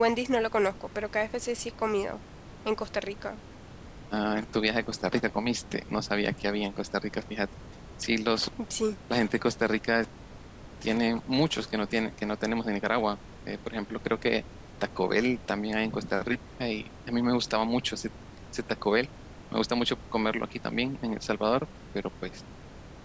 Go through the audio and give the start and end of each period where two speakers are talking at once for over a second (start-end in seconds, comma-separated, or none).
none